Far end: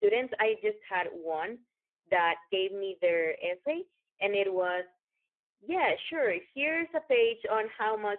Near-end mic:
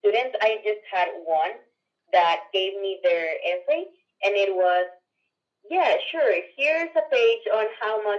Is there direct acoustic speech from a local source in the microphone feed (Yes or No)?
No